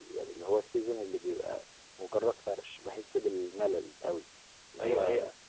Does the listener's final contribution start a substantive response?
Yes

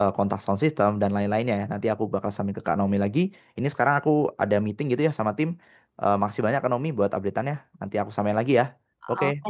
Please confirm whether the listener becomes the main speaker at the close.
Yes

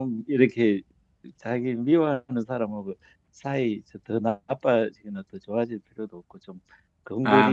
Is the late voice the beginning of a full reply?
No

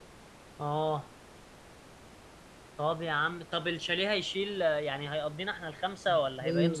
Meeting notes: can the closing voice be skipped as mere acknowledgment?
No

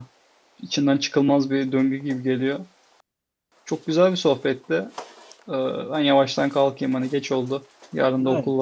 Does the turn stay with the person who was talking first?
No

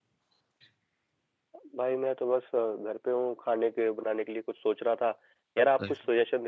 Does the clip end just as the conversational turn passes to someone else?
No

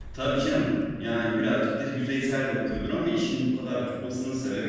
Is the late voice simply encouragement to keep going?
Yes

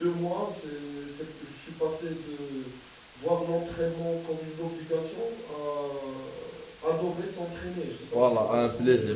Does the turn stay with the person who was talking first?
No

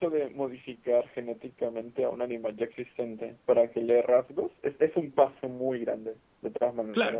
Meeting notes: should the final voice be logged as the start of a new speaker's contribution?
Yes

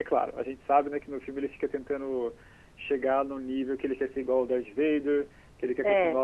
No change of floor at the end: Yes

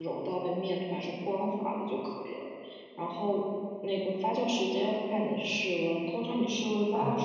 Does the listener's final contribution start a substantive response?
No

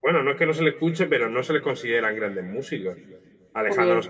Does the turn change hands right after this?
No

